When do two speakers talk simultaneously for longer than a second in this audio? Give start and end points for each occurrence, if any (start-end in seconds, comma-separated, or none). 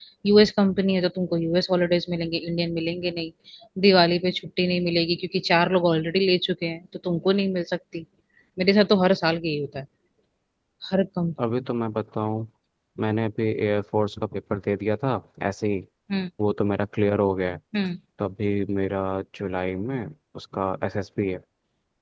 none